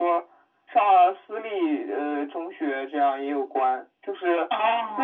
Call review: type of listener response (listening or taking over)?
listening